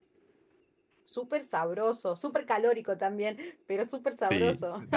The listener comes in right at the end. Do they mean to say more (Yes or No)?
Yes